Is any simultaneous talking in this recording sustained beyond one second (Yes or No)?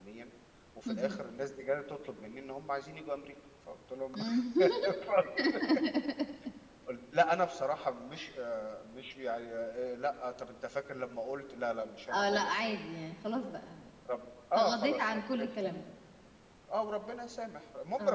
Yes